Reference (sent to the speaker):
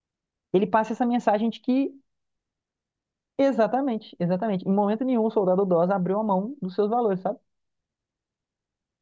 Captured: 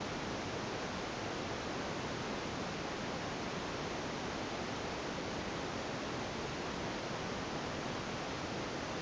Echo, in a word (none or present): none